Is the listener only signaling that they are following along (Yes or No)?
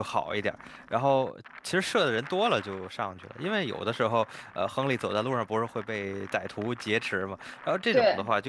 Yes